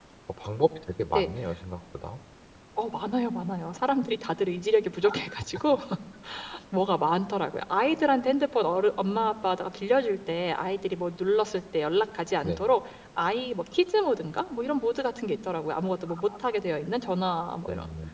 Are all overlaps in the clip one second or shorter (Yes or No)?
Yes